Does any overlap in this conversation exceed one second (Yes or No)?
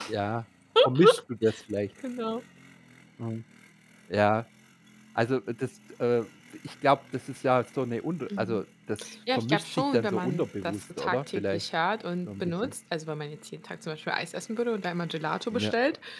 Yes